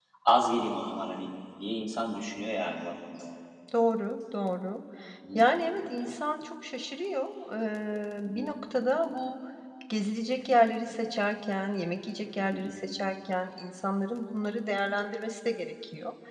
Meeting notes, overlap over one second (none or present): none